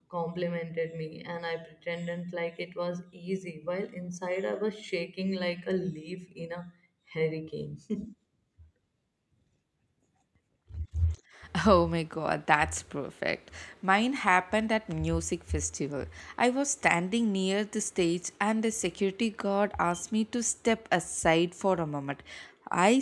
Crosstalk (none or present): none